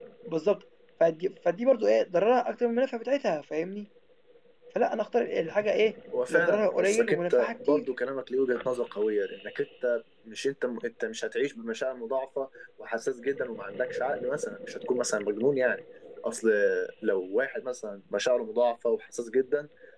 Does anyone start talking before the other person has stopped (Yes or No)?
Yes